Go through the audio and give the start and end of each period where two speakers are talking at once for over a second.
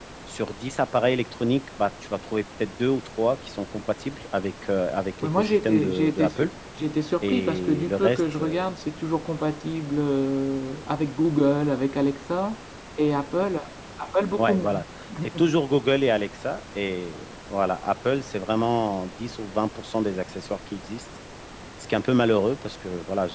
5.2-6.5, 7.2-8.6

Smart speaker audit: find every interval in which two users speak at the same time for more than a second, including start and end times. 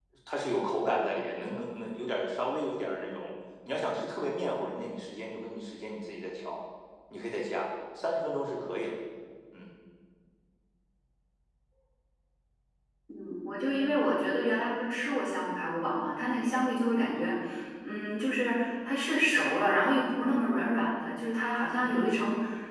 none

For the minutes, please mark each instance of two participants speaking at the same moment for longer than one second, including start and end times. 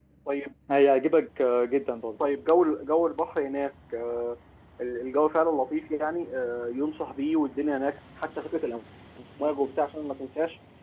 none

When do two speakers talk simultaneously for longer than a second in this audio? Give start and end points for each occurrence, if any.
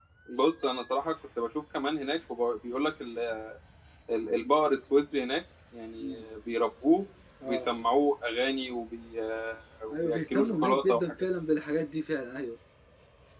9.9-11.2

